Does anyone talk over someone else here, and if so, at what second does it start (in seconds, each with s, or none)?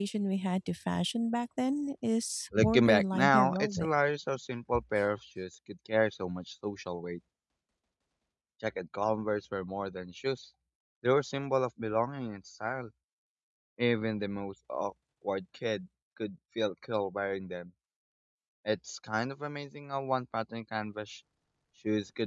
2.5 s